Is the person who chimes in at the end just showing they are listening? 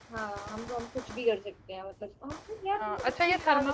No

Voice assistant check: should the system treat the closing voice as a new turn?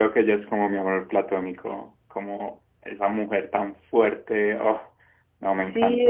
Yes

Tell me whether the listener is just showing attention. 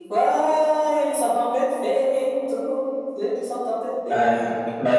No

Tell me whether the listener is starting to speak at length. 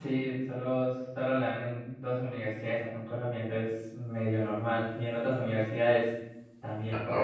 Yes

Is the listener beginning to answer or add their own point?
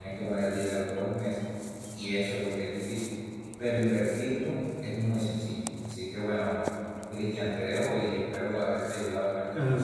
Yes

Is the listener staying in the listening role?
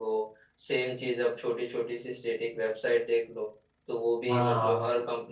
Yes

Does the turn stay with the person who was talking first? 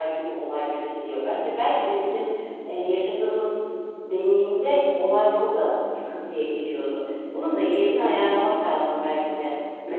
No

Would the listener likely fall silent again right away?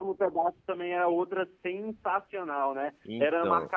Yes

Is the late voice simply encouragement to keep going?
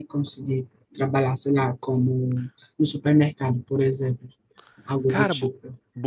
No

